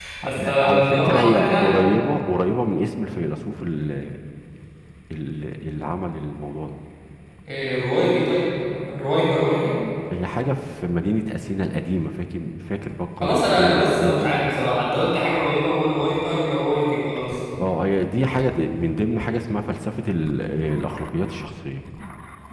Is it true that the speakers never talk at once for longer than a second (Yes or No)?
No